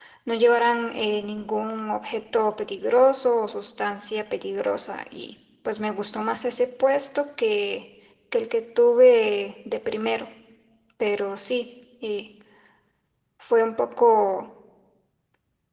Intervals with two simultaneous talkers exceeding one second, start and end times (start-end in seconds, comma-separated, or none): none